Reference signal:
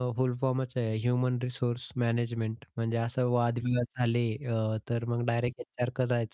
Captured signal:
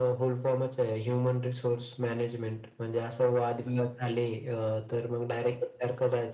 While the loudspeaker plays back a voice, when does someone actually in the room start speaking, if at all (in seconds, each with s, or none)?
none